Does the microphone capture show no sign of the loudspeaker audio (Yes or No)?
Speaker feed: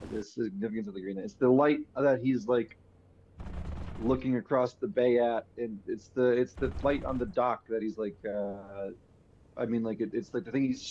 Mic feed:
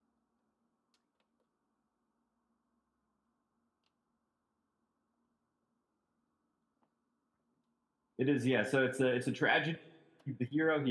Yes